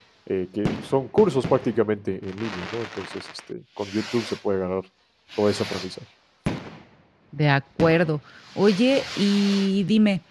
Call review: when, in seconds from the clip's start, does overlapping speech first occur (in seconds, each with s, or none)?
none